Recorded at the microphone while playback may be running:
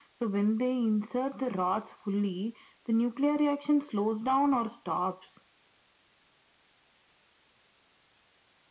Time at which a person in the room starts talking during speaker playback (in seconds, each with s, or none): none